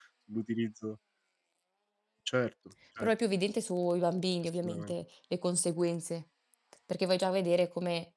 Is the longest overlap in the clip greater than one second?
No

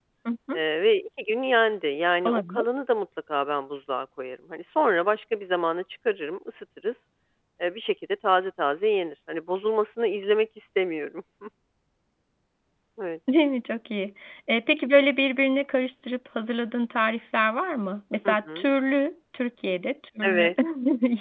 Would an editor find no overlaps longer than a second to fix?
Yes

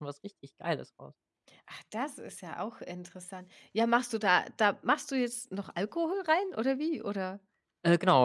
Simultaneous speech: No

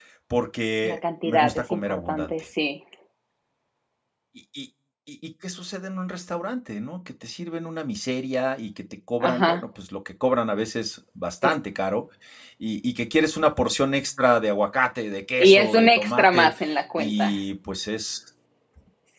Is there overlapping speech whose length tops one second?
Yes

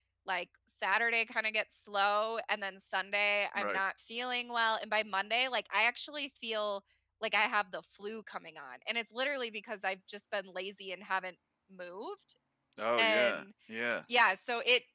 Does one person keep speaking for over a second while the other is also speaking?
No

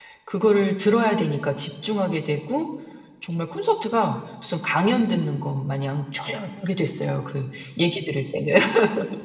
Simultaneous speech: No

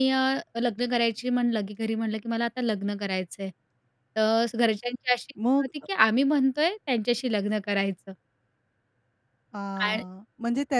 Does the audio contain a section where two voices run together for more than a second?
No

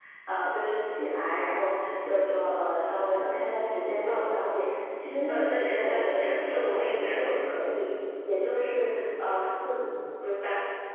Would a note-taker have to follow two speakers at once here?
Yes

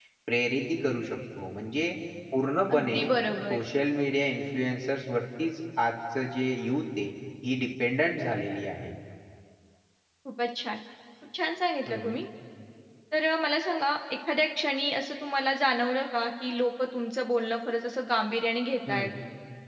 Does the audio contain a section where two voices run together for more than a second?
No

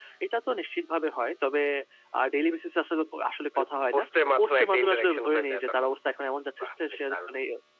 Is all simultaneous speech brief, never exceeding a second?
No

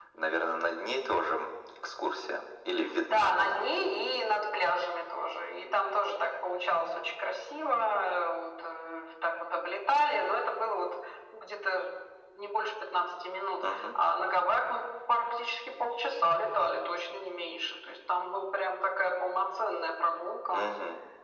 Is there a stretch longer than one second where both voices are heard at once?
No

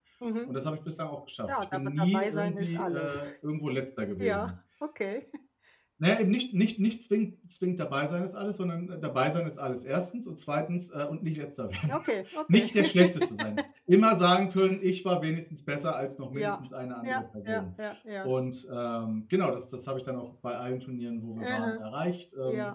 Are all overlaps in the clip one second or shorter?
No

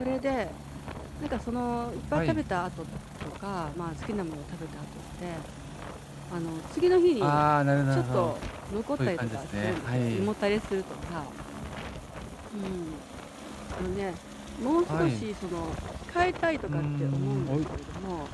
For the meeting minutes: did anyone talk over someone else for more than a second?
Yes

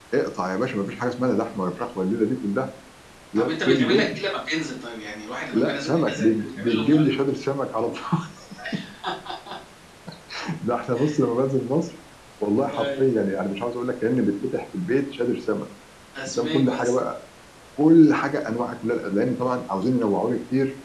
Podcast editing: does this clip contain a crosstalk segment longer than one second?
Yes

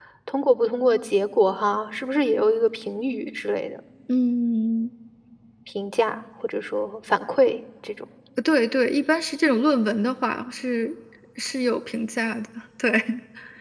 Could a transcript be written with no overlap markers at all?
Yes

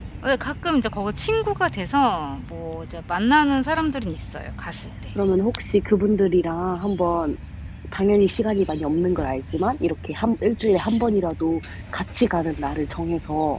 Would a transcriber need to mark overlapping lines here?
No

